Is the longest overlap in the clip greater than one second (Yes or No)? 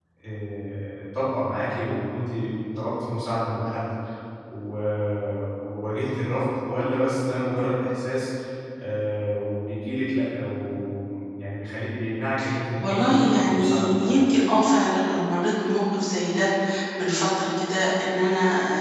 Yes